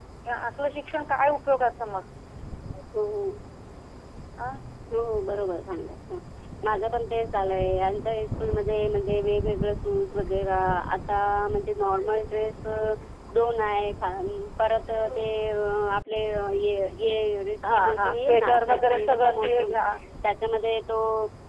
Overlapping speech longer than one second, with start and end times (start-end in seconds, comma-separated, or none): 17.6-19.9